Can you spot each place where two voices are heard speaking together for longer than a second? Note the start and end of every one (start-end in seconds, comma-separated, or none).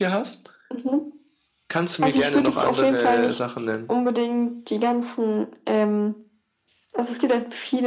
2.0-3.4